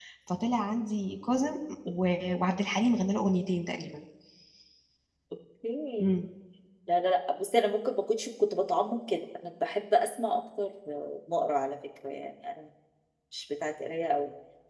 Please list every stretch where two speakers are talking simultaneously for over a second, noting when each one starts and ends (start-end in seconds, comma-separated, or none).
none